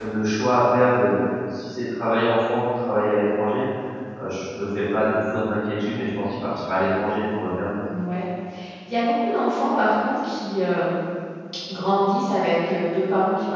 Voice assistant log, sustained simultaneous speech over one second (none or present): none